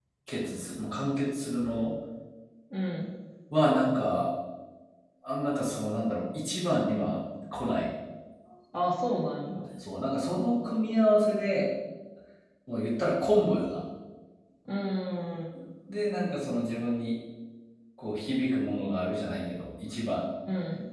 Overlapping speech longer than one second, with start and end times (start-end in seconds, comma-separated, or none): none